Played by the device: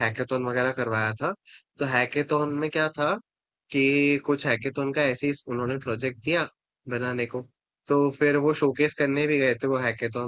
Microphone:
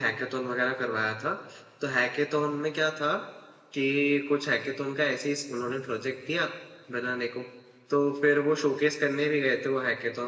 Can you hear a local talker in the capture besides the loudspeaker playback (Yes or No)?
No